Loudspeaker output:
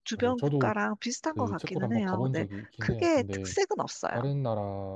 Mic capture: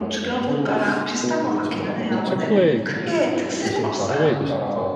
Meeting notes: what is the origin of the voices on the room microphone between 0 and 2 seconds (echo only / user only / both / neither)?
both